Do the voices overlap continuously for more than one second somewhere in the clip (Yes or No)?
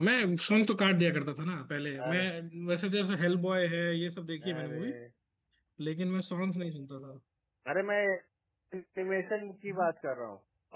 No